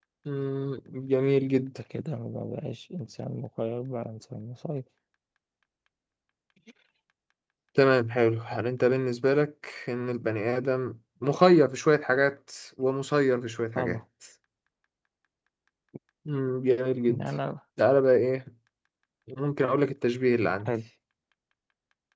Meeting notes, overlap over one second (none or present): none